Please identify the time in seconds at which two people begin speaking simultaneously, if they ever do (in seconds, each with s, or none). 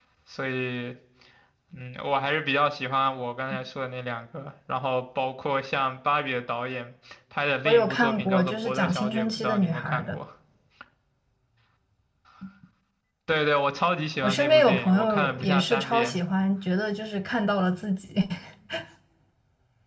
7.7 s